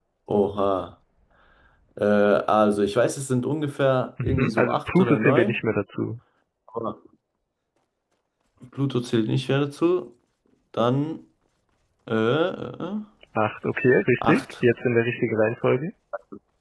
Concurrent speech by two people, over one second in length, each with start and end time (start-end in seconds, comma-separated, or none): 4.2-5.6